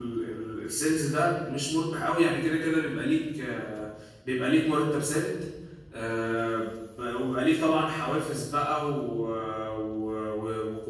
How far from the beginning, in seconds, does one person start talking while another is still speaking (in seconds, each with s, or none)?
none